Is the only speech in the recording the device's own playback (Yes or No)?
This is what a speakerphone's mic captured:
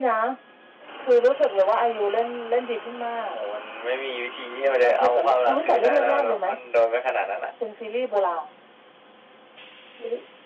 Yes